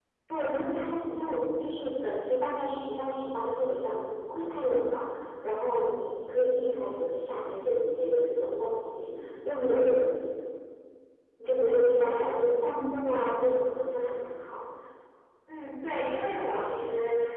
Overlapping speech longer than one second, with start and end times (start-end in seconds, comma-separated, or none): 11.4-12.8